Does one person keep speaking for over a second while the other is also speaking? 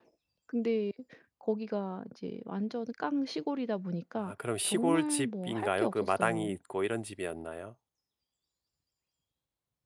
Yes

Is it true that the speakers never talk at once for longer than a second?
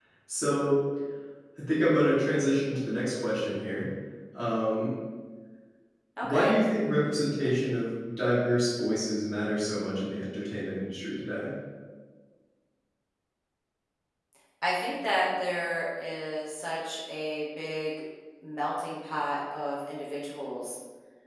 Yes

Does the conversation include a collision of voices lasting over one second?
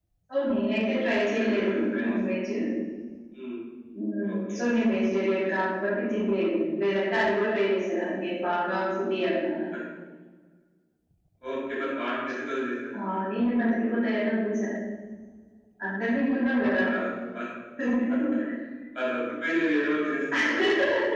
Yes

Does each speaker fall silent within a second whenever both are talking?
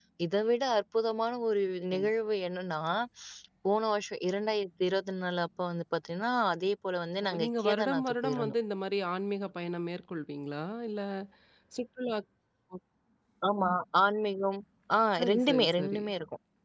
No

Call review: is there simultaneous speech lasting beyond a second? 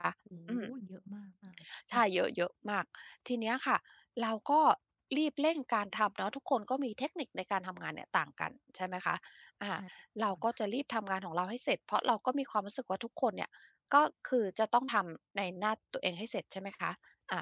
No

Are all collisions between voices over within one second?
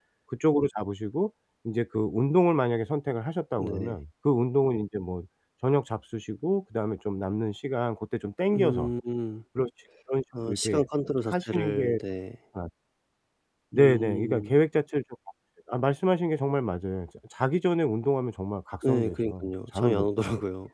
No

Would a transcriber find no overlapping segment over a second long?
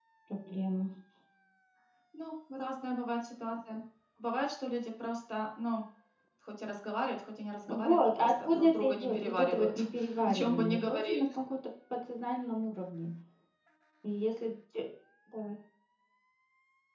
No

